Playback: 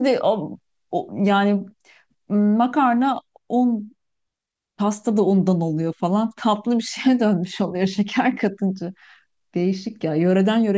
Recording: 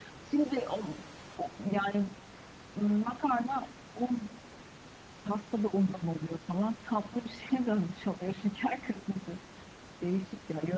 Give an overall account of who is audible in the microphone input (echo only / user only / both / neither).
echo only